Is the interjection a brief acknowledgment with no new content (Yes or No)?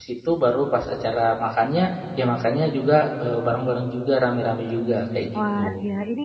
No